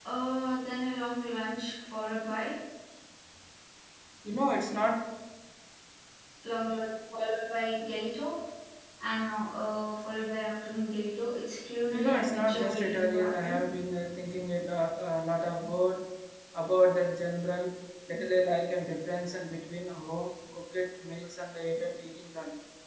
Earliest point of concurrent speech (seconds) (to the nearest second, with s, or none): 12 s